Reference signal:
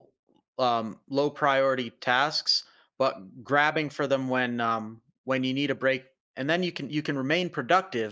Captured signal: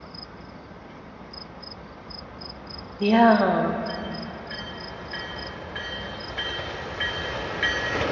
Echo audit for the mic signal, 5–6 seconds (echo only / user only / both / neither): neither